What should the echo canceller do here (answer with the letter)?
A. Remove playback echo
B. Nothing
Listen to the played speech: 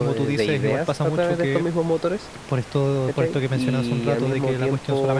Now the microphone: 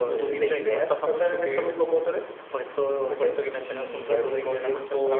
A